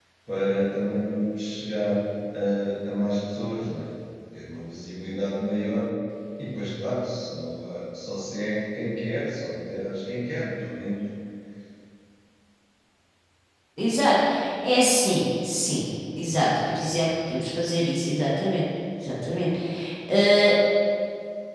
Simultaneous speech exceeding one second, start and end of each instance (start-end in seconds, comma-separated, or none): none